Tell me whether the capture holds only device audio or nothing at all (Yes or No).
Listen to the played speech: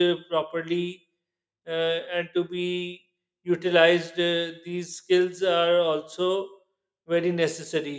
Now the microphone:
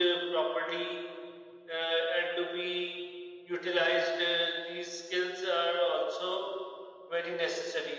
Yes